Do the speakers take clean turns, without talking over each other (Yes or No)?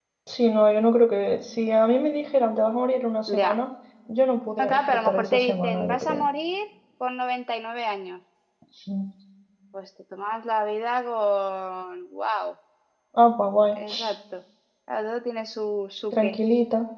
No